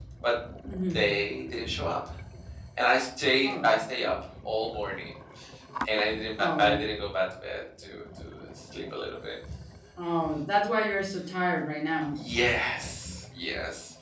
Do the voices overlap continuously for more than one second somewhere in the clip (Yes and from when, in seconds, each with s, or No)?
No